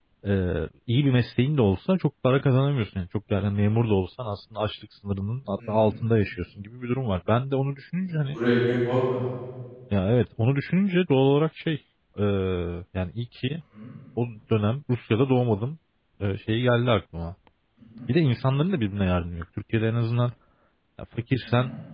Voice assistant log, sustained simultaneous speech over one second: none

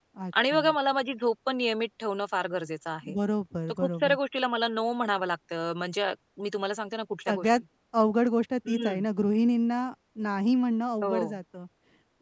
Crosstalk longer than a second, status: none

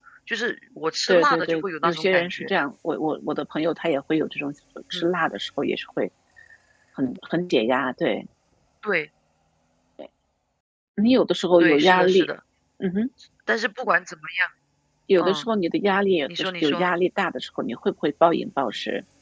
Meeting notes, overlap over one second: present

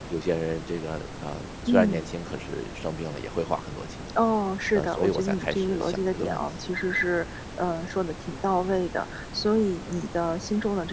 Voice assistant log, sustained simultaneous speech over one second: present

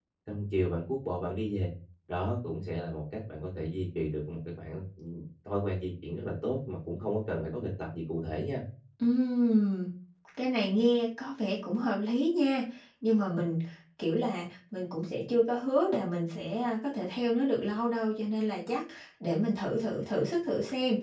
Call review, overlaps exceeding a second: none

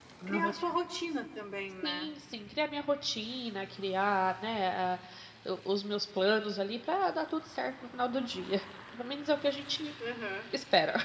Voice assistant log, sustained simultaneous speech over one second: none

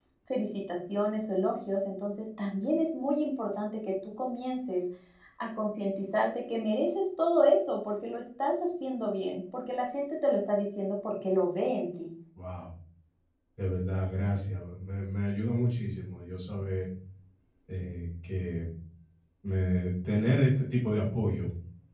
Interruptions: none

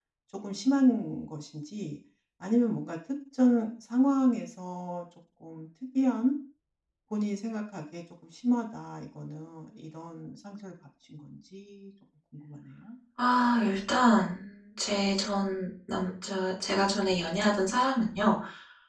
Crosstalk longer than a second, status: none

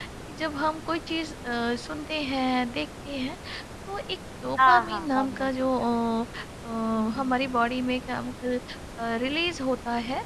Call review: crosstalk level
present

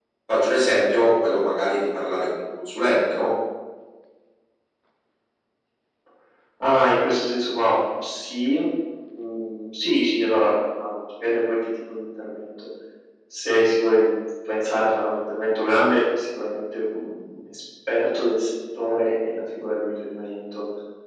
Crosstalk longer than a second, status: none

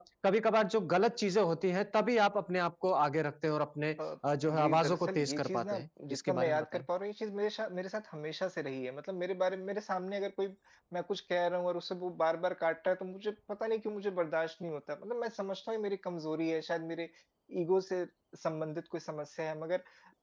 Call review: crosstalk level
present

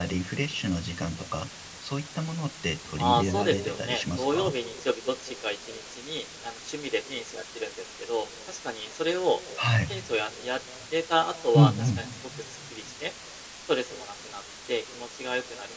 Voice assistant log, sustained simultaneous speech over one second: present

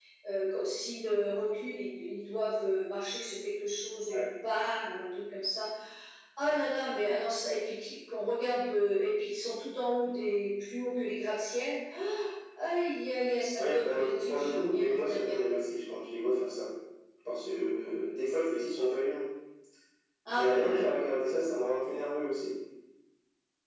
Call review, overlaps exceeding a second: present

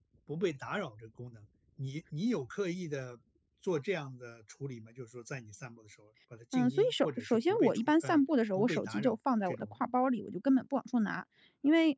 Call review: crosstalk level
present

